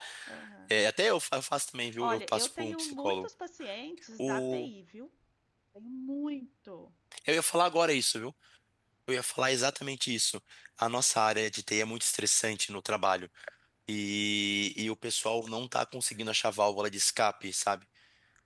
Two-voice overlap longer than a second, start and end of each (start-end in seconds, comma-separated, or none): 2.0-3.3